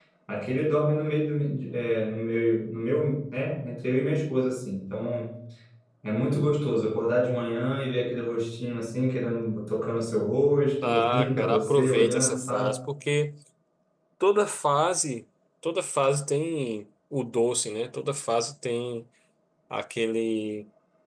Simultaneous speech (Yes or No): Yes